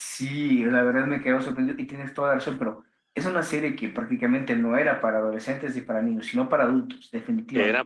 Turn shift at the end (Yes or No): Yes